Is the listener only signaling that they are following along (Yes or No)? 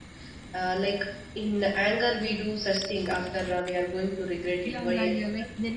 No